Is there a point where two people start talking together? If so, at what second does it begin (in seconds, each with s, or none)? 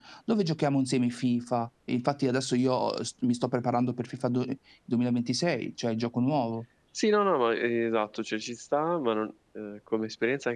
none